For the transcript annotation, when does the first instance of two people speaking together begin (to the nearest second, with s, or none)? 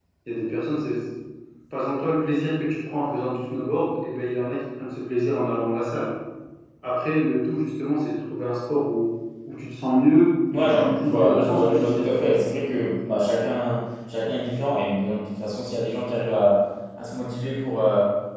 11 s